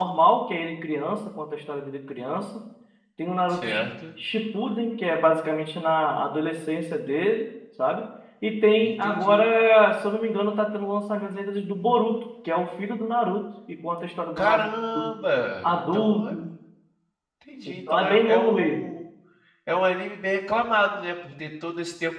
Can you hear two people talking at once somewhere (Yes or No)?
Yes